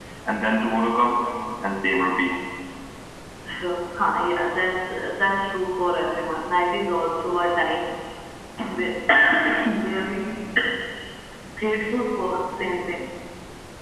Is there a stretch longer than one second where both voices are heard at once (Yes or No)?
No